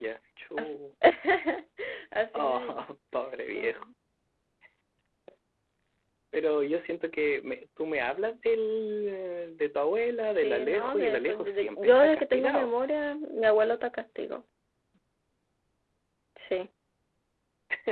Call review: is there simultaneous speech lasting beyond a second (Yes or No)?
Yes